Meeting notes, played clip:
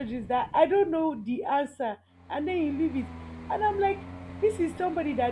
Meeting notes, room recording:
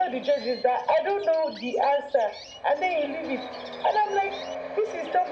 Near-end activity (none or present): none